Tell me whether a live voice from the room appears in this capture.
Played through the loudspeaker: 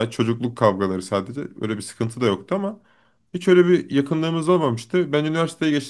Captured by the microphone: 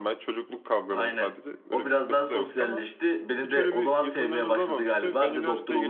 Yes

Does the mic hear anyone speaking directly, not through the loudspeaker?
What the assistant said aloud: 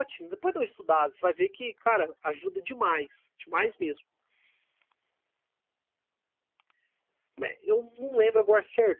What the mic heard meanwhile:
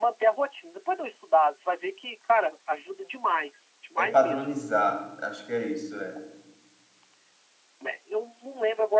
Yes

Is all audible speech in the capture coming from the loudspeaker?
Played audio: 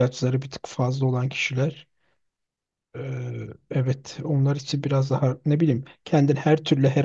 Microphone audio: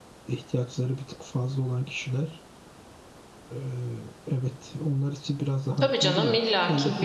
No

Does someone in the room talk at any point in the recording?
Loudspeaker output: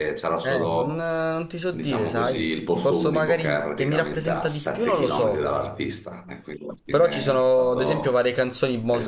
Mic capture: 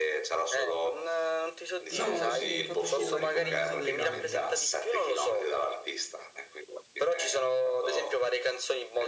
Yes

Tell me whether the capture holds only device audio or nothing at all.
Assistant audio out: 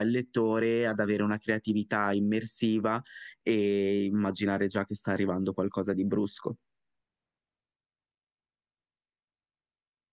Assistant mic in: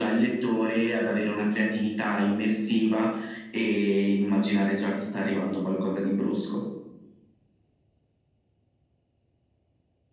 Yes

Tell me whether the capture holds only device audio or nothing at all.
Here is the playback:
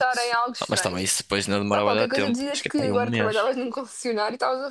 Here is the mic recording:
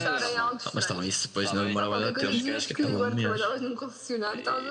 No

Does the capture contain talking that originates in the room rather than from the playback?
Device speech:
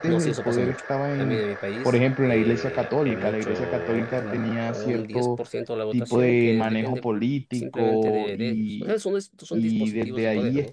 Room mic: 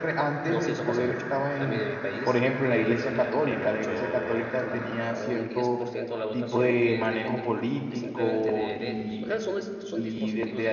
No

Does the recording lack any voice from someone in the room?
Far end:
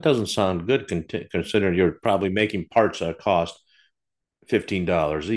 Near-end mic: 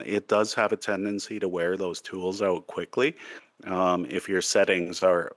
No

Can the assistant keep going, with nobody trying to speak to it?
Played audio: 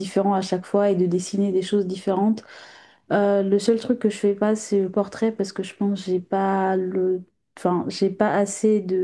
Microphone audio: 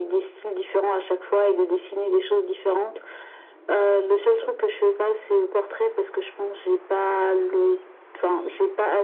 Yes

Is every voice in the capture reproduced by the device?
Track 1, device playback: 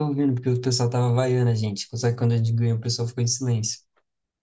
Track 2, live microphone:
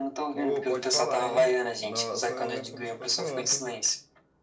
No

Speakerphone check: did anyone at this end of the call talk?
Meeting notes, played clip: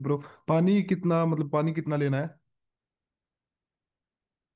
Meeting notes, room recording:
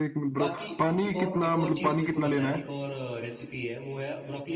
Yes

